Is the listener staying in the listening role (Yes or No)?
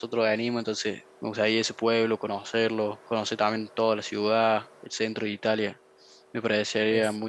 Yes